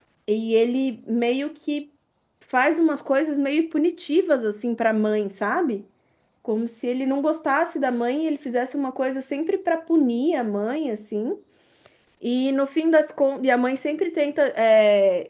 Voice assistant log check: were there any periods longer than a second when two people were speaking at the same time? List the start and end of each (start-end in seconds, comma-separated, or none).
none